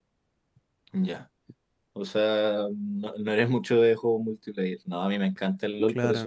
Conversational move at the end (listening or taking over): listening